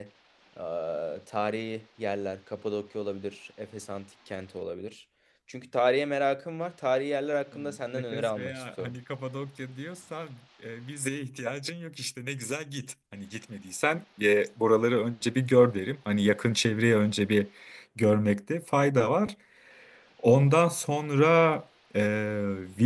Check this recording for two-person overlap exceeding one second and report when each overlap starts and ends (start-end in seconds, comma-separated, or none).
7.5-8.9